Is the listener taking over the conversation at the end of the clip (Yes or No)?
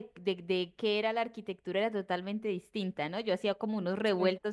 No